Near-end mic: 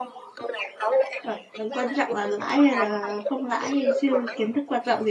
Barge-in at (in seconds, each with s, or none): 1.2 s